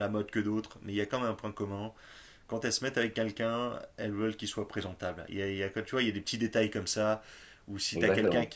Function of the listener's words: listening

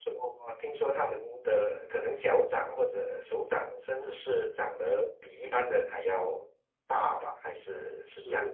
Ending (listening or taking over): taking over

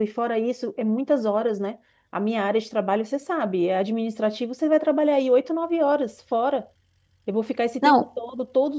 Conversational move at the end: listening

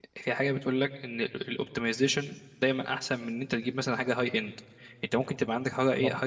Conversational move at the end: listening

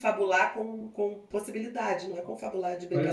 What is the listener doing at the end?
taking over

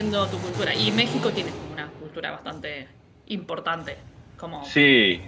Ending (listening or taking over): taking over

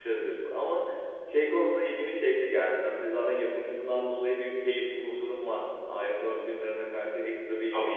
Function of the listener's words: taking over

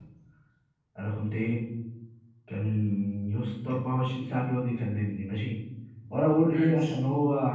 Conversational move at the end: listening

